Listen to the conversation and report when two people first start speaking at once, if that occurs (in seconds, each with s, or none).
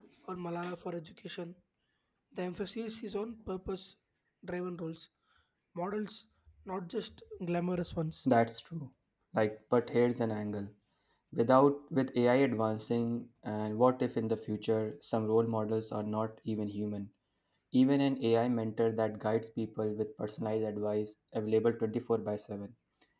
none